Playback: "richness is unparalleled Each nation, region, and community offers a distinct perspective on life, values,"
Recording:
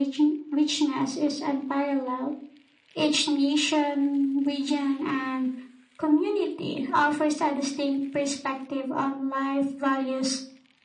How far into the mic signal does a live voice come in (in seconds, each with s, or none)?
none